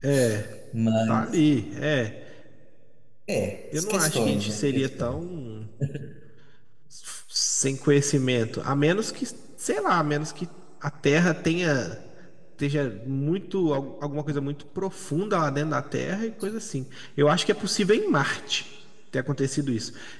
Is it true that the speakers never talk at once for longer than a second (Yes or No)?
No